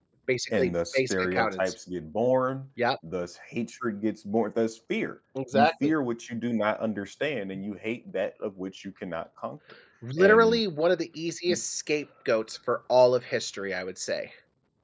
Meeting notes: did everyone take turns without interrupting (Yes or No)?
No